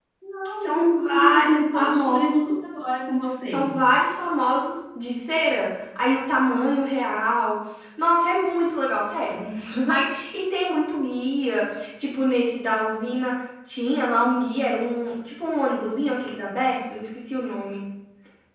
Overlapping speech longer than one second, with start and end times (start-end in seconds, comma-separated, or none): 0.6-2.6